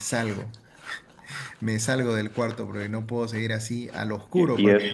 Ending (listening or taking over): taking over